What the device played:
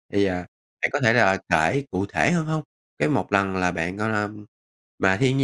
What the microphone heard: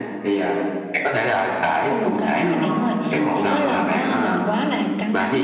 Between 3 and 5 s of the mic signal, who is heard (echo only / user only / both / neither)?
both